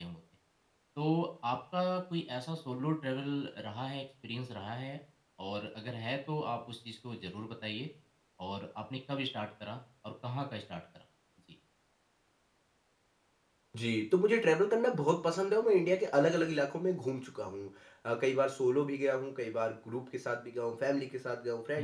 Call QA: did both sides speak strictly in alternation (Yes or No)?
Yes